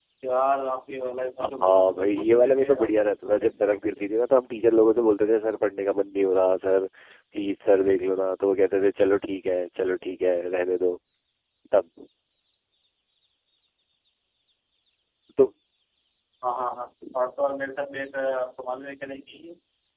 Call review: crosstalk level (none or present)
present